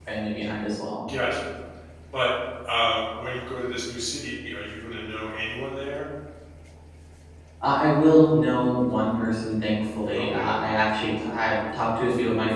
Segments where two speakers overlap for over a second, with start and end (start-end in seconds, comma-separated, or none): none